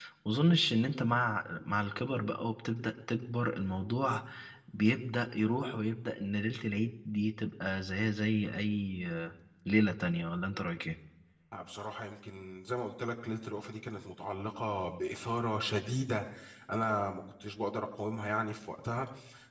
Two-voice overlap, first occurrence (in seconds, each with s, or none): none